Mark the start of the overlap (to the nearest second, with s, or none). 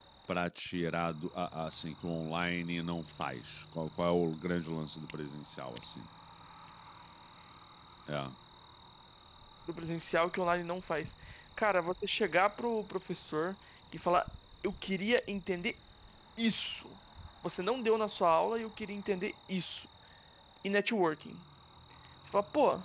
none